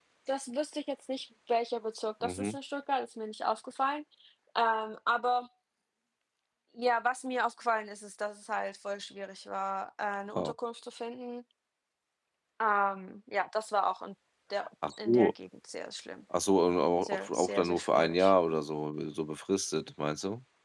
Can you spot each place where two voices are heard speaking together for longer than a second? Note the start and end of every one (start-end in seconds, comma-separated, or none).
17.0-18.3